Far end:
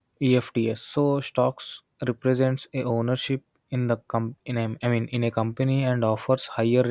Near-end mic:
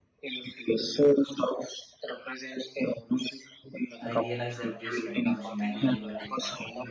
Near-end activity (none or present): present